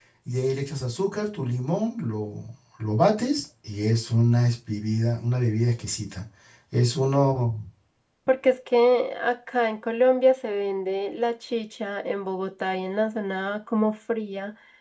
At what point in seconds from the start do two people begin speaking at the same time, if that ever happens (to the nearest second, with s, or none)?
none